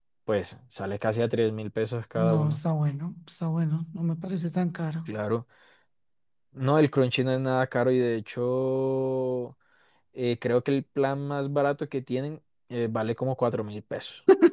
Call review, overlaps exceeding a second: none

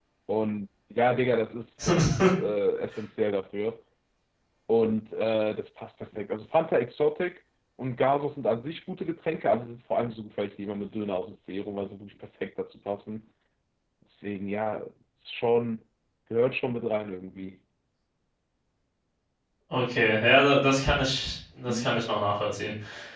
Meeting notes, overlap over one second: none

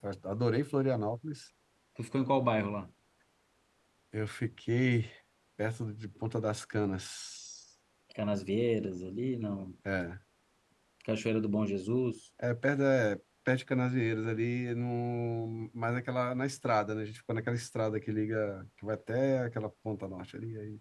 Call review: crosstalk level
none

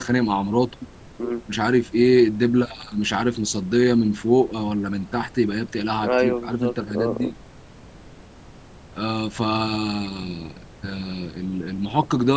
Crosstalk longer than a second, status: present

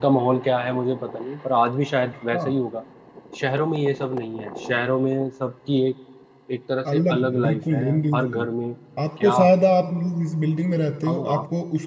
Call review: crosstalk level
present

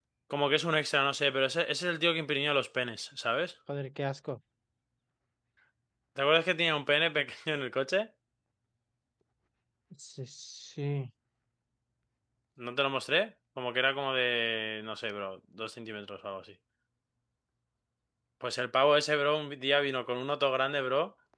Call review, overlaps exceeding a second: none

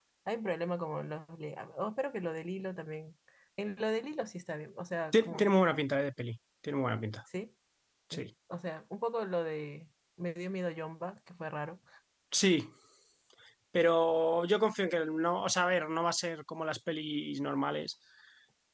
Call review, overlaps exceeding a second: none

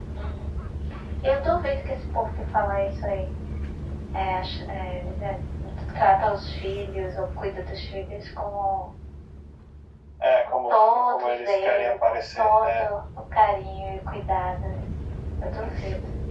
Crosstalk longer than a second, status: present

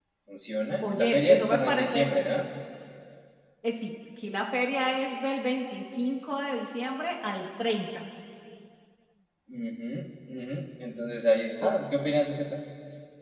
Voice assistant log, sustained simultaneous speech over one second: present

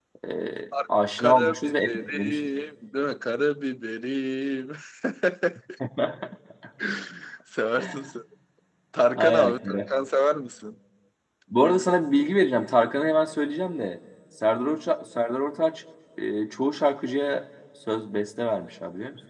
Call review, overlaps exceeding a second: present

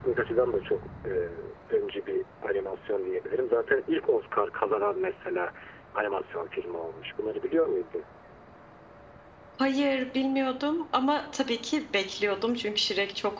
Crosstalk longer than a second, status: none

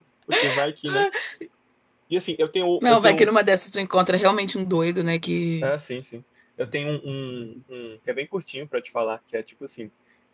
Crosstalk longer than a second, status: none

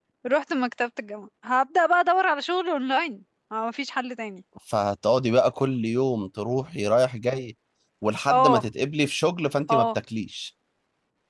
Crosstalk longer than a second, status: none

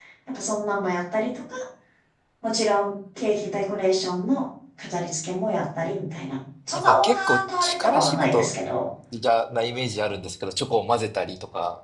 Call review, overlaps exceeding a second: present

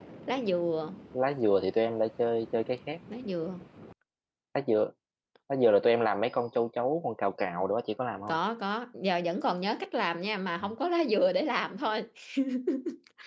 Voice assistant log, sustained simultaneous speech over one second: none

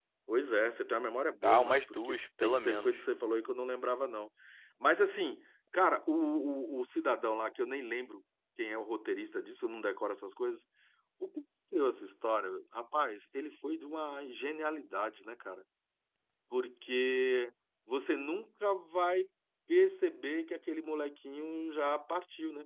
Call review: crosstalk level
present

